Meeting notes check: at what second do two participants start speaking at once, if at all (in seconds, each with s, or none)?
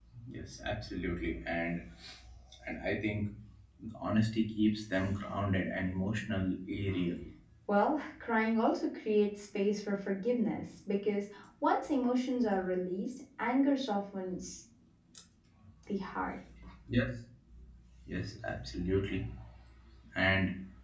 none